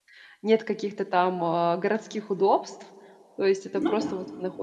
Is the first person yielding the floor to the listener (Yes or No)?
No